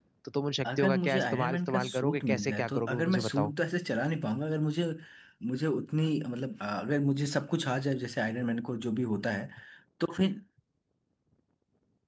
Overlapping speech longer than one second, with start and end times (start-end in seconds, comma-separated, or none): 0.7-3.5